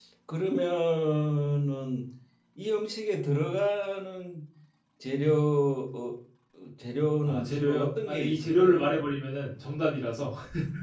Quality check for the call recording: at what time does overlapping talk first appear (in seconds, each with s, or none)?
7.2 s